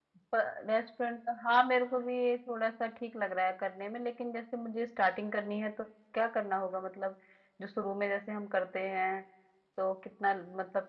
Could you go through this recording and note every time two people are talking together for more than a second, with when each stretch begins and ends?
none

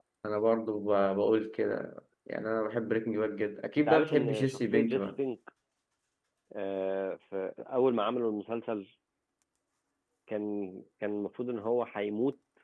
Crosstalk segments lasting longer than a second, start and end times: 3.8-5.0

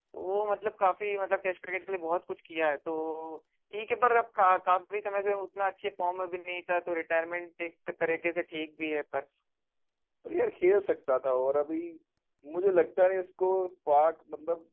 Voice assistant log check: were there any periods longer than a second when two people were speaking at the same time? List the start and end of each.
none

